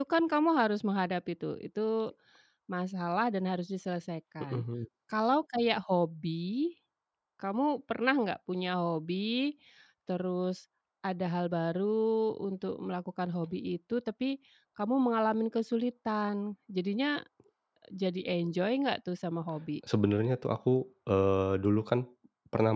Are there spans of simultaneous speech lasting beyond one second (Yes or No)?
No